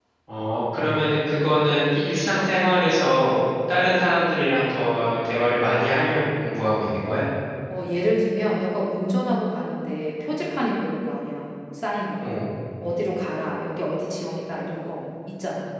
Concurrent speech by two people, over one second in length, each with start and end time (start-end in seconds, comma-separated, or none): none